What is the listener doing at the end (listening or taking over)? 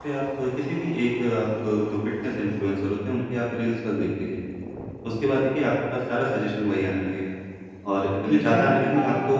listening